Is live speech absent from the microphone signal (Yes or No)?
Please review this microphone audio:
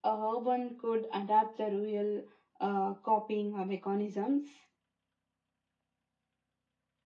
Yes